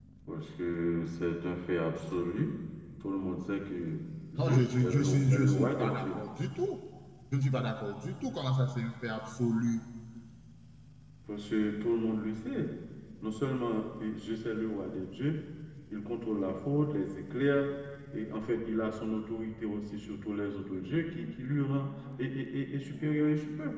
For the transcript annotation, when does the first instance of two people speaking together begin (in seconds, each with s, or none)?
4.4 s